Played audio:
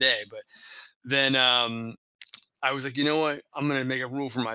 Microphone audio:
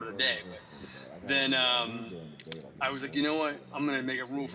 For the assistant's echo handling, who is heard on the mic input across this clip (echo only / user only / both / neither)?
both